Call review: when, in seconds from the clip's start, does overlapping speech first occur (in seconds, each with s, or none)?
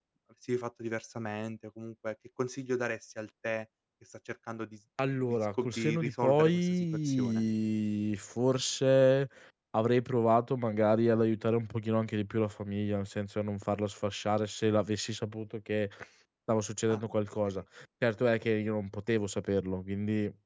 5.0 s